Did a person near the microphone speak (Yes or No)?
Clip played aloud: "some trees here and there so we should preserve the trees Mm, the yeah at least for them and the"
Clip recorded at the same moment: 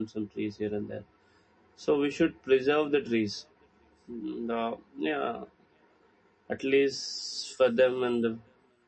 No